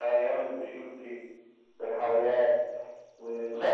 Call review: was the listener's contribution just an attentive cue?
No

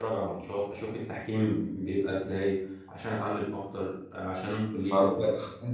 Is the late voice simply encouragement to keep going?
No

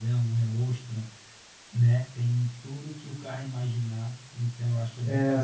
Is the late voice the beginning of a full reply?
Yes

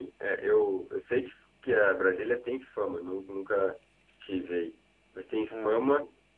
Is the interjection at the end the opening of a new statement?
No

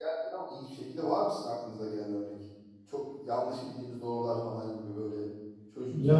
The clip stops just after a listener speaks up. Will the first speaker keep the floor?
No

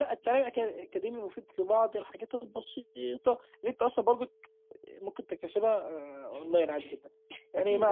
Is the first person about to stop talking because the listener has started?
No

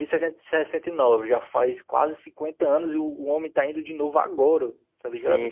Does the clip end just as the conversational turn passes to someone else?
Yes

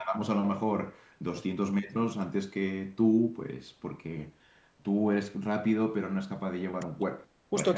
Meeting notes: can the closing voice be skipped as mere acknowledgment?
No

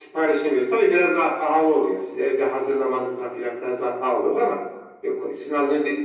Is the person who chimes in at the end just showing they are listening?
Yes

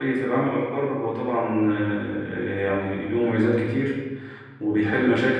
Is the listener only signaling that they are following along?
Yes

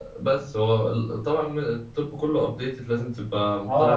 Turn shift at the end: Yes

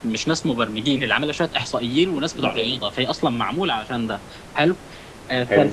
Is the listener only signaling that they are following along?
Yes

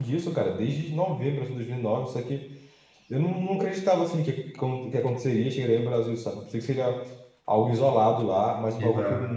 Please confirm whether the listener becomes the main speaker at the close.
No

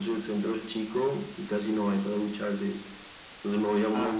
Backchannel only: Yes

